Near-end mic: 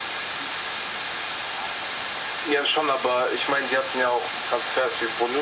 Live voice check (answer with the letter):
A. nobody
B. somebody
A